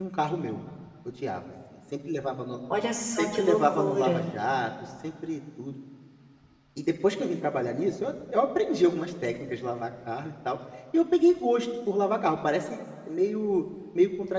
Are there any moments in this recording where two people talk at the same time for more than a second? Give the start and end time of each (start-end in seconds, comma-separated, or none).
3.0-4.2